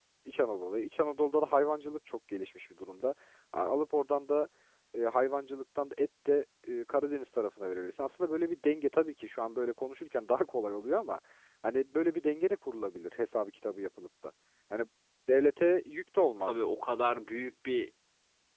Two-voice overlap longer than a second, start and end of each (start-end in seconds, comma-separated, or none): none